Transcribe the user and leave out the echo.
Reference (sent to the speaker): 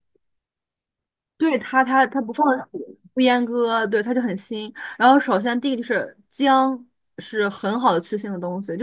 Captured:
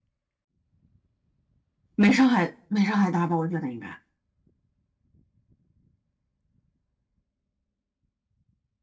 没上海没上海大吧？我觉得应该。

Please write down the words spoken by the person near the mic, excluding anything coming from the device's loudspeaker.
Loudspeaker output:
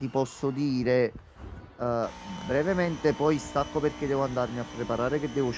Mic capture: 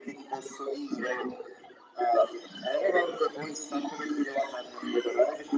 none

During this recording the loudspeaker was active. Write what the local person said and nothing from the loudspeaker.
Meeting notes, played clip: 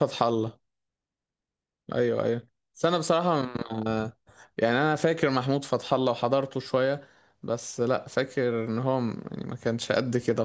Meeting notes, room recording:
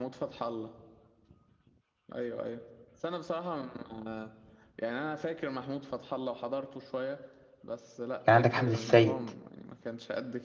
كان عندك أحمد السيد

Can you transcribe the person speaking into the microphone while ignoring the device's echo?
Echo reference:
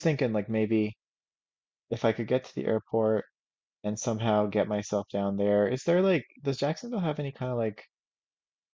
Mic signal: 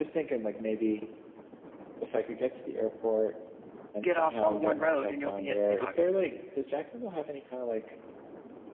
get off on one road, and you'll be at St. Augustine.

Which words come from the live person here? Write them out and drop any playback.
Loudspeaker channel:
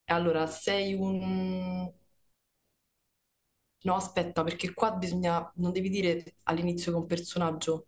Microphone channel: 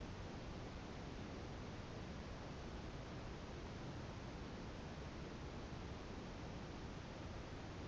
none

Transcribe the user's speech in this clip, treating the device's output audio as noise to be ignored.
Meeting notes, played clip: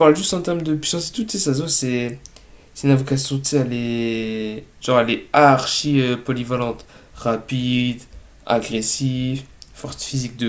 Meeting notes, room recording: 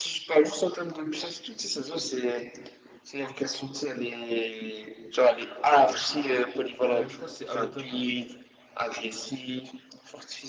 Euh, je crois que c'est Aota.

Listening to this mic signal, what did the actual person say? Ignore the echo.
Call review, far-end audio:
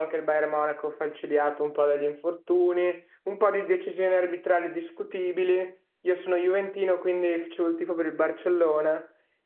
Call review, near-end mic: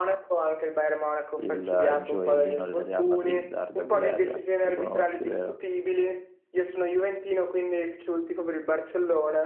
il gioiellino del Real Madrid, Arda Güler, lo conosci, vero?

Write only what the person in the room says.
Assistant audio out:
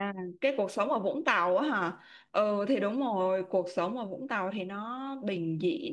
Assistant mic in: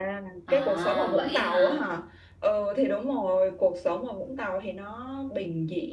à, vậy hả

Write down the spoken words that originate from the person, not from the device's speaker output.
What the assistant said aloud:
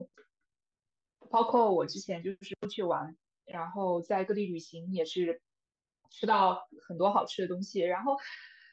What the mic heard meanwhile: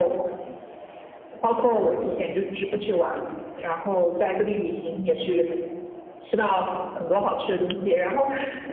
none

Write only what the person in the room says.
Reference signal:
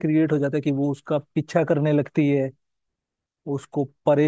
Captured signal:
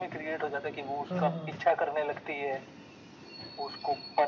हाँ हाँ

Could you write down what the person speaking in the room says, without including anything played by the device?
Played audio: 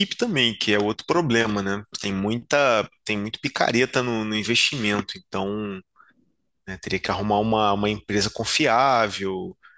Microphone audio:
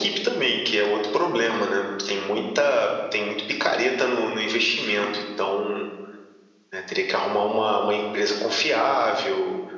none

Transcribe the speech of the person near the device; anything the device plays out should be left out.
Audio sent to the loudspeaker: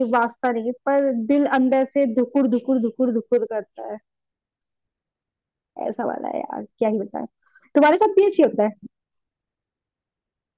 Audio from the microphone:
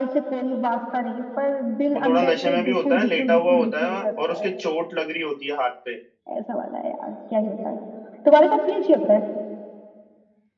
वो थोड़ा नशे में भी होता है लेटा हुआ होता है और उसके चोट लग रही होती है हाथ पे

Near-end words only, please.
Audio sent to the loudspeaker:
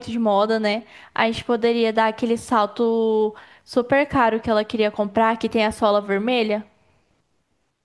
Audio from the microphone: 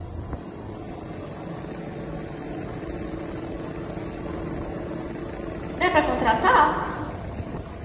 Dá pra contratar?

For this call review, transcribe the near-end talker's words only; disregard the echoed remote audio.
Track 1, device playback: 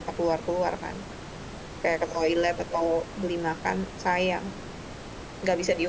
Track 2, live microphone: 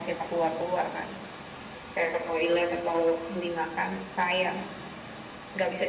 none

